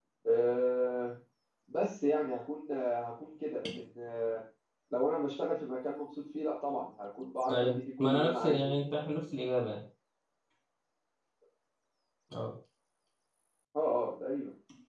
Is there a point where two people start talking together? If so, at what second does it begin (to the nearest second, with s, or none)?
7 s